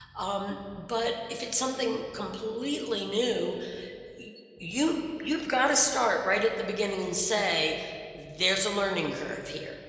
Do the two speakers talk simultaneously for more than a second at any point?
No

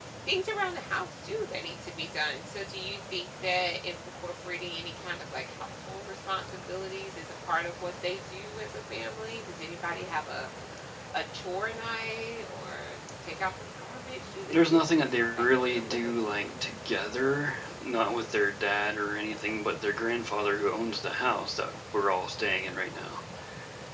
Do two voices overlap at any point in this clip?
Yes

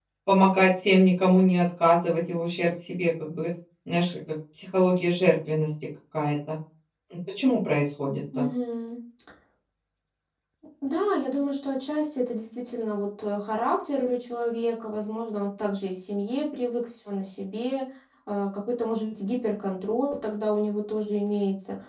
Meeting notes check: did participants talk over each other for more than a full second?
No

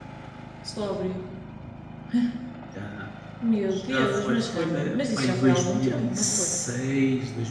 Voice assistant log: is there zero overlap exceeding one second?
No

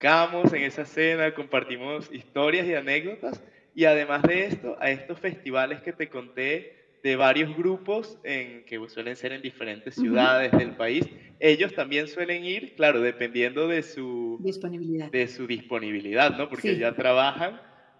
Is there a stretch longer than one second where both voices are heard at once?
No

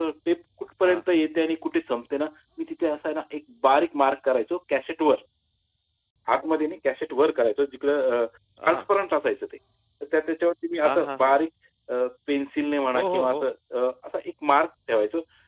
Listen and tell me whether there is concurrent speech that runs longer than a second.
No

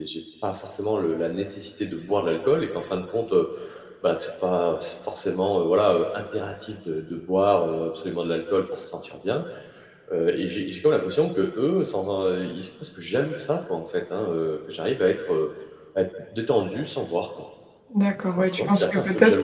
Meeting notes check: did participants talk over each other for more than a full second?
Yes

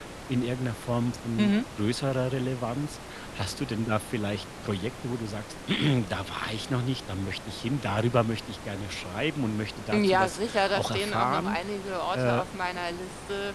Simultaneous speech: Yes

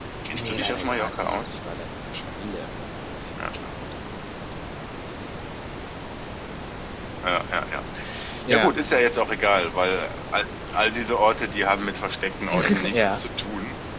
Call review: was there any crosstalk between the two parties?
Yes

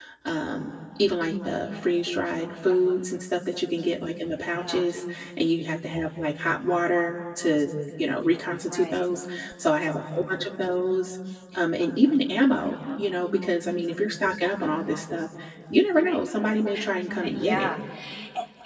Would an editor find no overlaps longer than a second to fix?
Yes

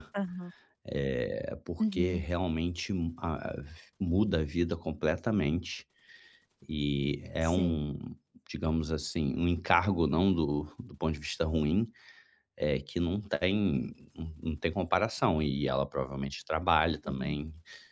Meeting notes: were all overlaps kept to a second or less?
Yes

